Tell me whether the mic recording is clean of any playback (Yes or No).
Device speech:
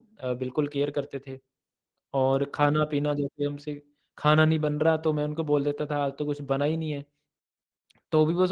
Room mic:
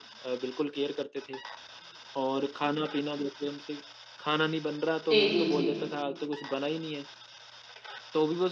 No